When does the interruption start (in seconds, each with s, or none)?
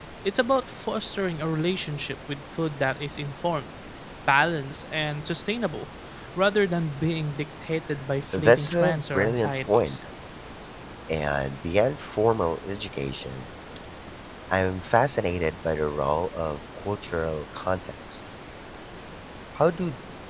8.3 s